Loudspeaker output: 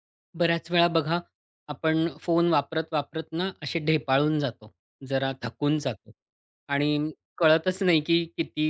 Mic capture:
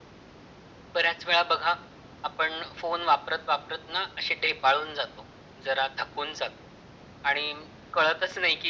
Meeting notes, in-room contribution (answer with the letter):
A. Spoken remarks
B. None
B